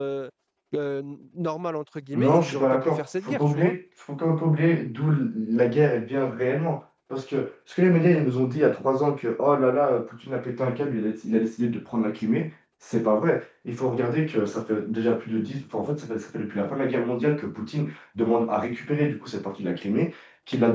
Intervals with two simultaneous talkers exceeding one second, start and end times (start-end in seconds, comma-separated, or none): 2.1-3.7